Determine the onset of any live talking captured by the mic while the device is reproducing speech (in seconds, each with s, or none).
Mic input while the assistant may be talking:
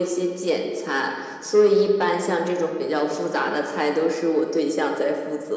none